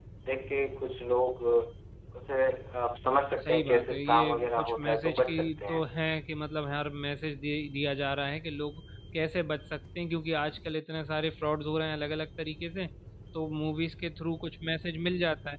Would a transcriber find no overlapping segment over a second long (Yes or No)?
No